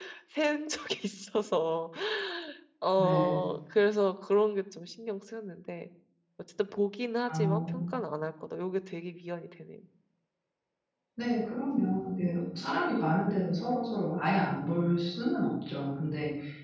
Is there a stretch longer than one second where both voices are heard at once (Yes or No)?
No